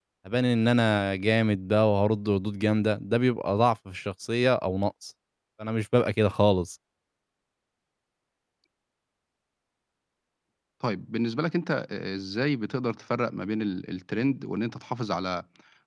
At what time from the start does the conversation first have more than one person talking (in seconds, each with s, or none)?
none